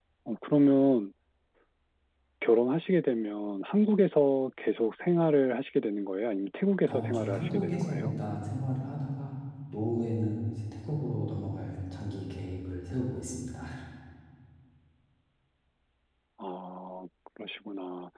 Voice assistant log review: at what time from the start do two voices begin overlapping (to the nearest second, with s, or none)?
7 s